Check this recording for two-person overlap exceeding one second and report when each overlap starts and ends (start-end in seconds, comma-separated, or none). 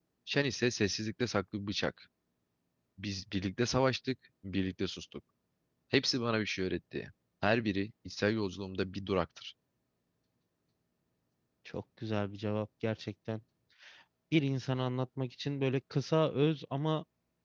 none